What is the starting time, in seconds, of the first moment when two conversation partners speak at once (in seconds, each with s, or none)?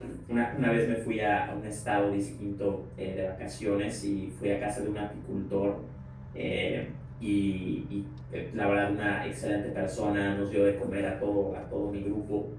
none